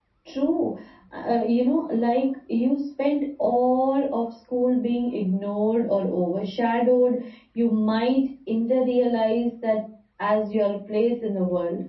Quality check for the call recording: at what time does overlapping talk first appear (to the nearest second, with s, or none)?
none